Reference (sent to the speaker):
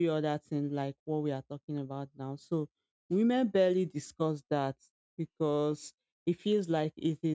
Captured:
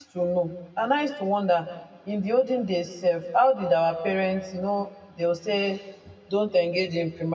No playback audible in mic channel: Yes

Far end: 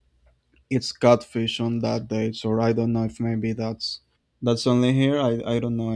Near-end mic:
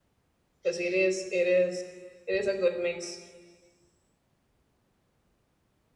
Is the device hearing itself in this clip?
No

